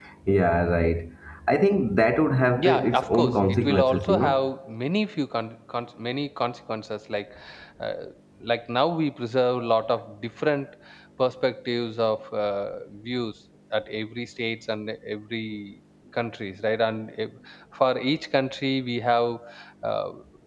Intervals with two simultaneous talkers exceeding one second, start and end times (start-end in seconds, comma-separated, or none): 2.6-4.4